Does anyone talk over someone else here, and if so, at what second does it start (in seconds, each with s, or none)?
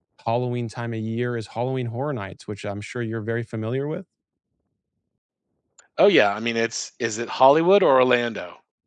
none